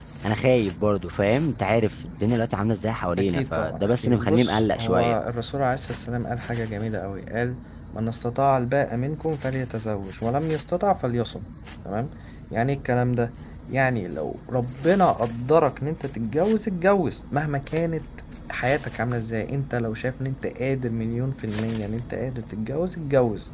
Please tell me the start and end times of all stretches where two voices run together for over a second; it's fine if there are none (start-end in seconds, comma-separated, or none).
3.2-5.2